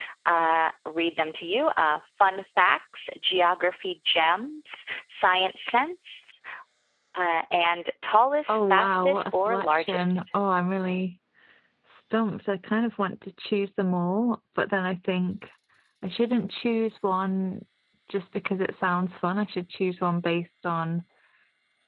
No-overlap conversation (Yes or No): No